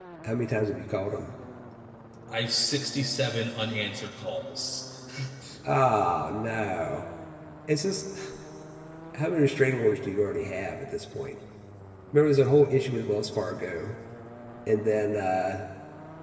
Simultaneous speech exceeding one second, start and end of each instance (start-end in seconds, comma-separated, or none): none